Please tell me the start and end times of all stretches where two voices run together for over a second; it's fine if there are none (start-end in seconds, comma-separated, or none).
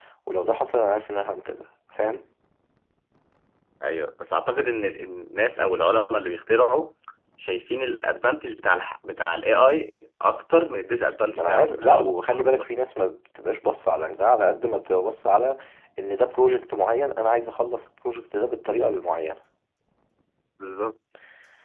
11.3-12.6